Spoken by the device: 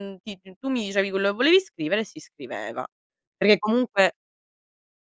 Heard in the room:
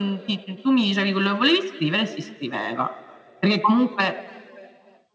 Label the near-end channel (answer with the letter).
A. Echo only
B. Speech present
A